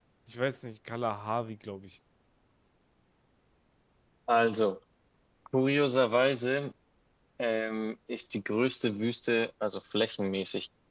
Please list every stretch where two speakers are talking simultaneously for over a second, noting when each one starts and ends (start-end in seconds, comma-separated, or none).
none